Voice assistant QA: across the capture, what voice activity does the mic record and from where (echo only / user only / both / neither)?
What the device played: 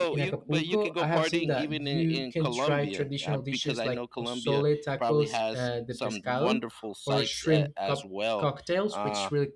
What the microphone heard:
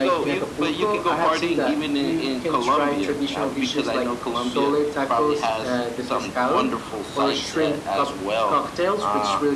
echo only